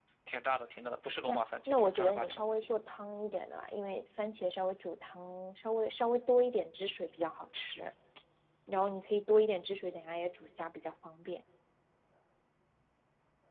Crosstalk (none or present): present